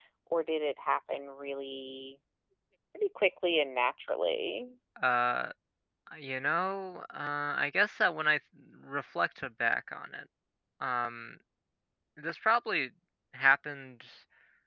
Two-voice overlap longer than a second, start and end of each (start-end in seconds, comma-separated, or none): none